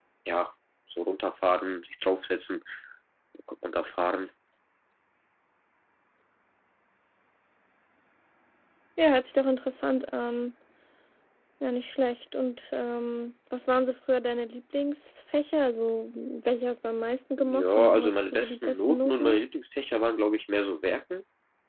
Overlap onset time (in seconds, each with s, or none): 17.4 s